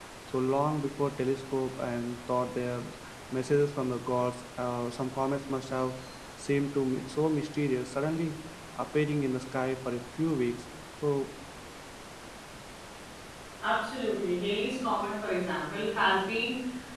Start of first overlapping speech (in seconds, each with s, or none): none